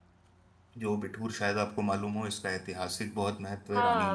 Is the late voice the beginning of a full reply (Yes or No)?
Yes